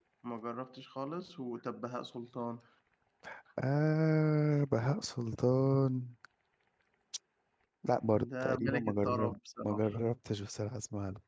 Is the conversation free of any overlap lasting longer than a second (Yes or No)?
No